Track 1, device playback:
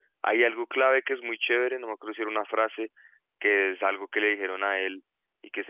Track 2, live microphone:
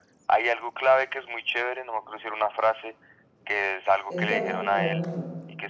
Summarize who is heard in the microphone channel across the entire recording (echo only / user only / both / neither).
both